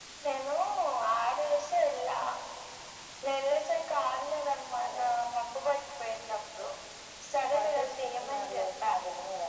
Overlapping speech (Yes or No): Yes